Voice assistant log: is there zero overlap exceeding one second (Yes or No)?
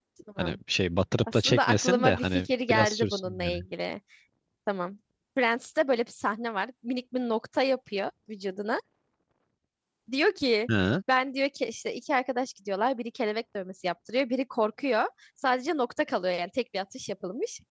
No